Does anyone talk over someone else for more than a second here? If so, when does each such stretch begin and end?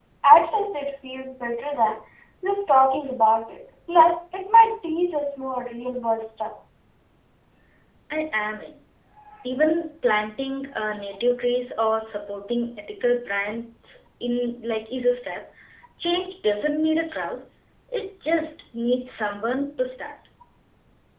none

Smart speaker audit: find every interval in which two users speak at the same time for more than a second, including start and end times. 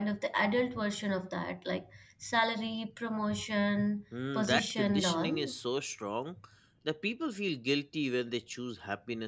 4.3-5.5

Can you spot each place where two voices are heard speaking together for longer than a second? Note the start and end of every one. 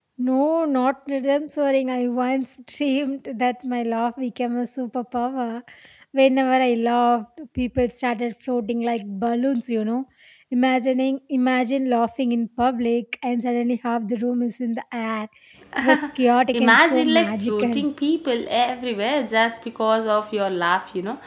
16.5-17.9

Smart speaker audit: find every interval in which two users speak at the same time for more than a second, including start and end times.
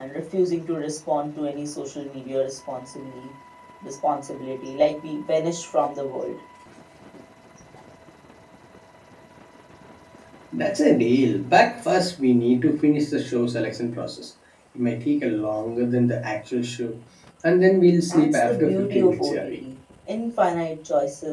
18.1-19.4

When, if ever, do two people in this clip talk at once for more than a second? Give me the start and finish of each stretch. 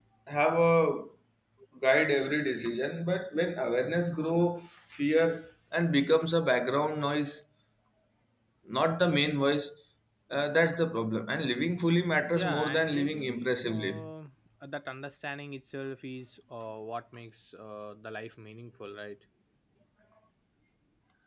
12.3-14.1

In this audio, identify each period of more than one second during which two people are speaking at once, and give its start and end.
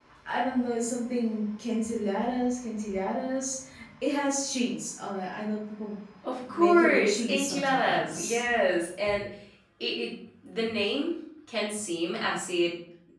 6.5-8.4

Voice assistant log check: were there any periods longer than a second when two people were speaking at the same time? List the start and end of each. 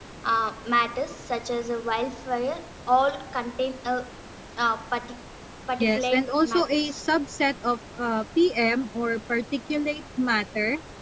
5.8-7.0

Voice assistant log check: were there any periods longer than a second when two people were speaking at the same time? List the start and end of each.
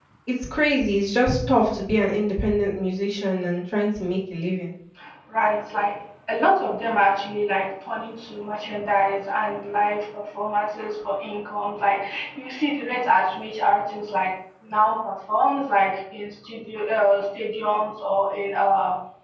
none

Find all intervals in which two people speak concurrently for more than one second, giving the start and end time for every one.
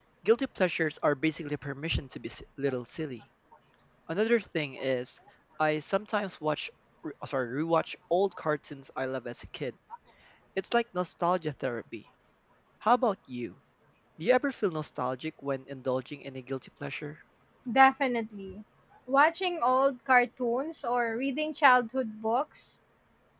none

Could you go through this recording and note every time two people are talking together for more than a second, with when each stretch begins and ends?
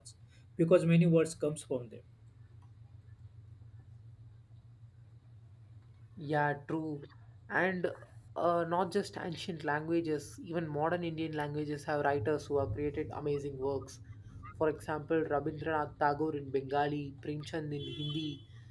none

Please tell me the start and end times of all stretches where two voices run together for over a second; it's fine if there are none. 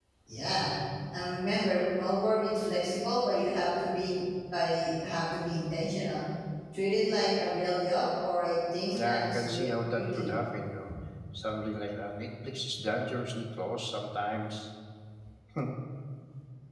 9.0-10.3

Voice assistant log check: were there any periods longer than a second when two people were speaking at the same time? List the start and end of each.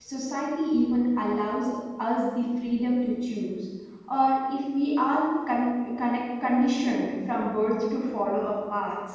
none

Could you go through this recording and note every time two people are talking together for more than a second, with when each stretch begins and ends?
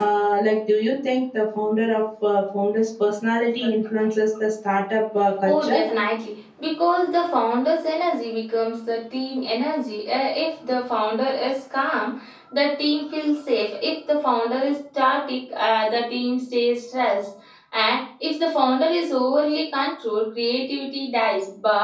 none

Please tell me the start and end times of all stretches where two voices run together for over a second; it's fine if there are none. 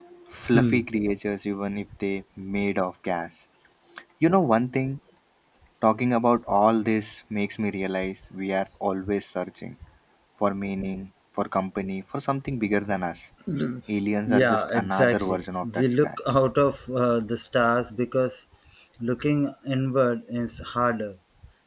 14.3-16.1

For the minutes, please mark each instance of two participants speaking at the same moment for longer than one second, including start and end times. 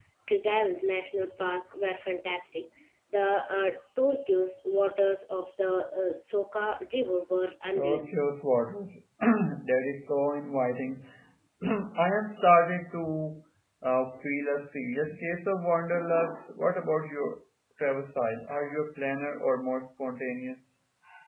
none

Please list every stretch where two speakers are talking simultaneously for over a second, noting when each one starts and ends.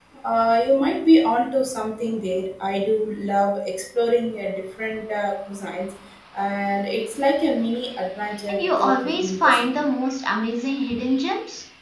8.5-9.9

